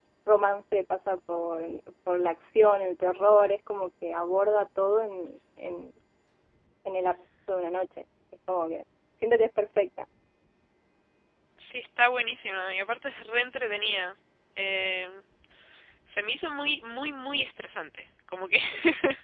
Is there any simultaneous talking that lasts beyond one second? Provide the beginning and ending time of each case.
none

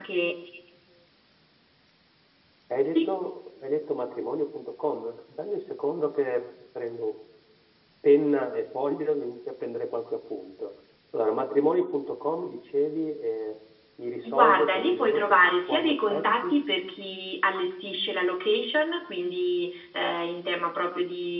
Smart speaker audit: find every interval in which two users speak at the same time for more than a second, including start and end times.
14.3-16.5

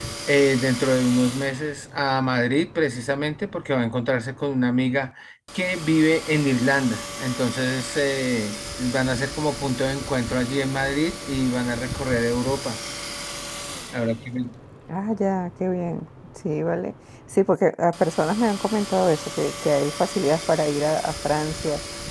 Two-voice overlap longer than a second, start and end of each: none

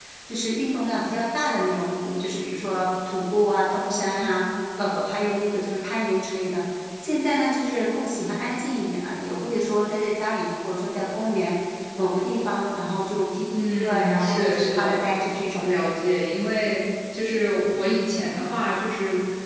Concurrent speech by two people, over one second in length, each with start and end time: 13.6-15.0

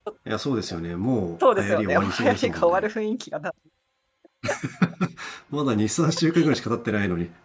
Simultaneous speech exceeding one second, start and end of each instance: 1.5-2.9

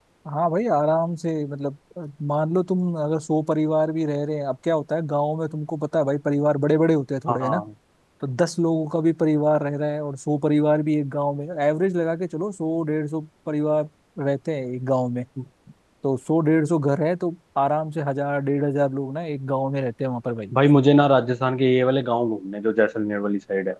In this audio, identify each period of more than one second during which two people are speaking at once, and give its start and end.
none

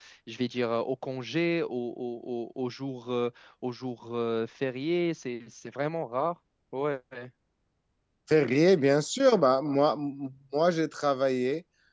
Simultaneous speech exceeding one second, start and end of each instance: none

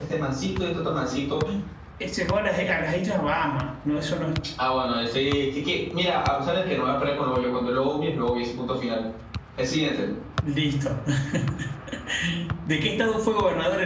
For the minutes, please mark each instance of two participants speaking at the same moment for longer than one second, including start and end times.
none

